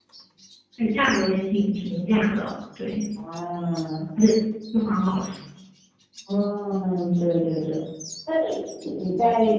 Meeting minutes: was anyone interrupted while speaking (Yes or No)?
No